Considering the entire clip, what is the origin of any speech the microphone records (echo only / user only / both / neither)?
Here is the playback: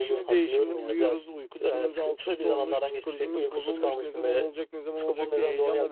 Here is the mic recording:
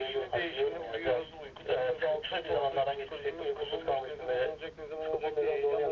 echo only